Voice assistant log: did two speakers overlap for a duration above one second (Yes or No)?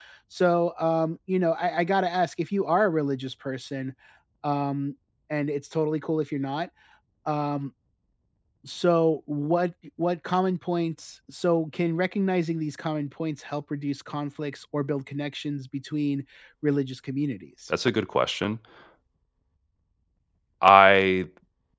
No